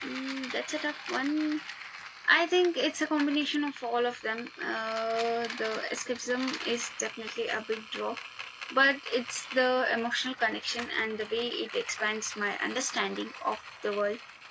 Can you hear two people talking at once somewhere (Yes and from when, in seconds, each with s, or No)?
No